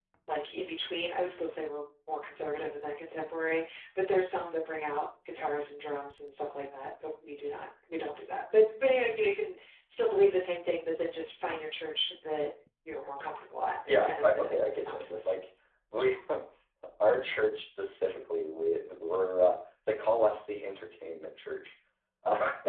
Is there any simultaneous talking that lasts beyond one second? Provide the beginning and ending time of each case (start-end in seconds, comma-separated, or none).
13.9-15.3